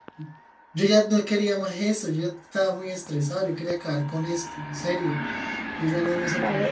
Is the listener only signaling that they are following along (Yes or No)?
No